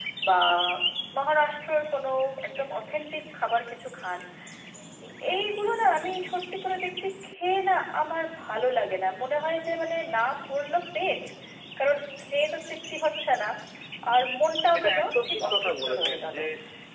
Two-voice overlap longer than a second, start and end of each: 14.8-16.4

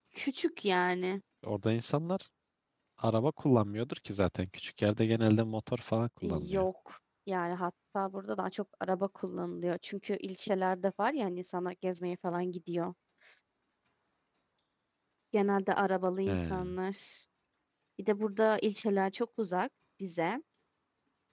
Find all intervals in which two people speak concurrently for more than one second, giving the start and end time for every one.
none

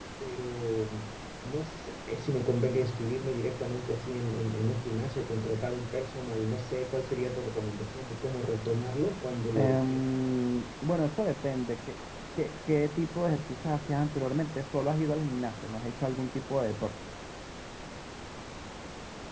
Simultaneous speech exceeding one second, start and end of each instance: none

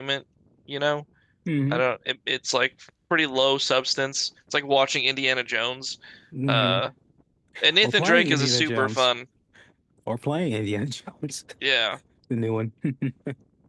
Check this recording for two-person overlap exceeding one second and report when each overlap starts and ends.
7.8-9.1

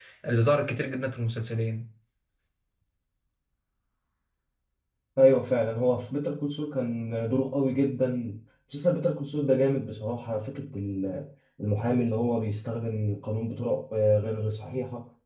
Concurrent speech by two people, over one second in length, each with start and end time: none

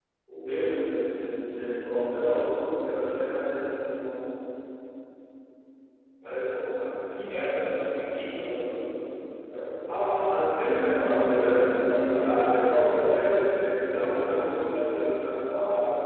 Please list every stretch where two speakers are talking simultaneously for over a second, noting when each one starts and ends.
10.9-13.0

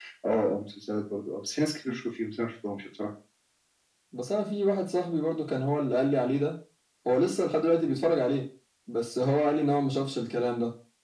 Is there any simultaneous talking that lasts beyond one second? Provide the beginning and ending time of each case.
none

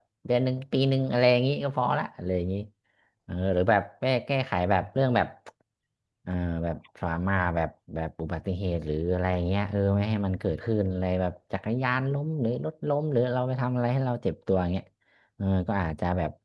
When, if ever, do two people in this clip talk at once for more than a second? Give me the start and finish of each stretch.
none

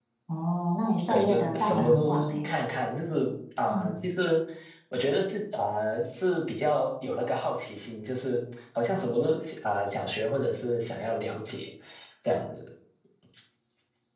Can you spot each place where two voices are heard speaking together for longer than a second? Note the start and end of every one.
1.1-2.5

